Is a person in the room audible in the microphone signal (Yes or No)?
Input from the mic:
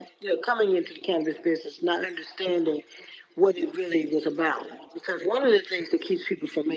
No